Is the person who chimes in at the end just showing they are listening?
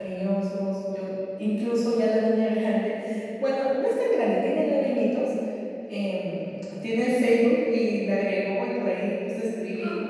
Yes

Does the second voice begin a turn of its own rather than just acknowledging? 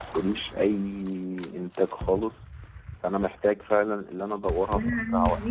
Yes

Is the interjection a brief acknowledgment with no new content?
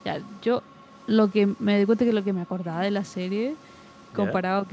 Yes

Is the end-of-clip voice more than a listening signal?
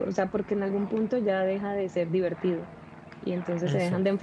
No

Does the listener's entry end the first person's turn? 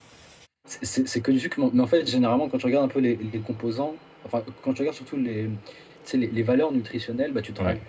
No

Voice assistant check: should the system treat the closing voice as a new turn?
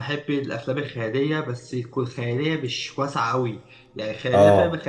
No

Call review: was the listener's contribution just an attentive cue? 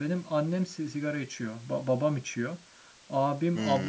Yes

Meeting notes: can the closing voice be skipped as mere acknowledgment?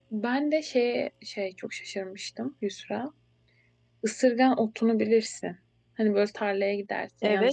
No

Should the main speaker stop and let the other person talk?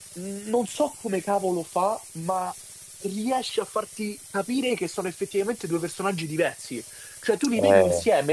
No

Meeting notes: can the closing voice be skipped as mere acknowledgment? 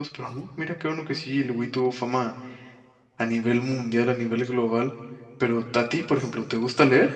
Yes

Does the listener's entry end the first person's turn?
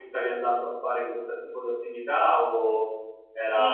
Yes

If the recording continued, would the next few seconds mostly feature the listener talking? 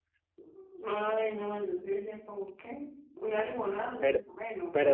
Yes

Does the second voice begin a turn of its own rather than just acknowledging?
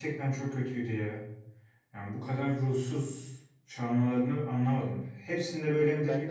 No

